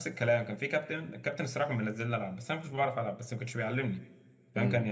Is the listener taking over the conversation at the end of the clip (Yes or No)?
No